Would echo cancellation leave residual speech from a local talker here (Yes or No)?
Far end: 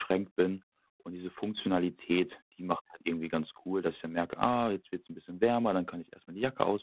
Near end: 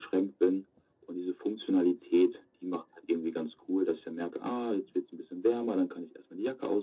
No